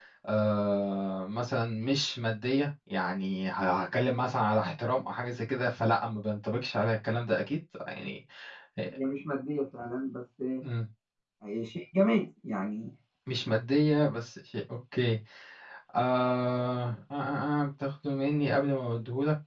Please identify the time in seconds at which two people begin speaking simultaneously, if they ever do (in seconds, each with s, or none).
none